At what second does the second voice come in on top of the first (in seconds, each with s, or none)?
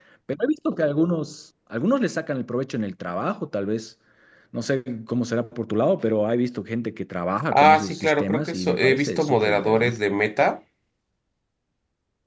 7.5 s